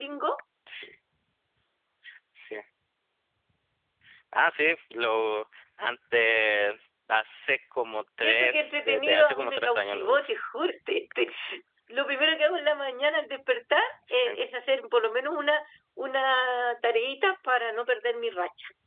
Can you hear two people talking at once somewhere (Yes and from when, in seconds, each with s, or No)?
Yes, from 8.2 s